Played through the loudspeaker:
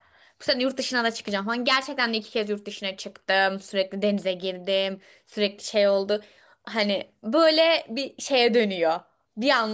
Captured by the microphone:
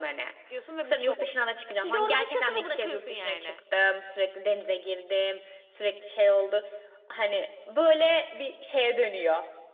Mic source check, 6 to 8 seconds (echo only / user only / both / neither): echo only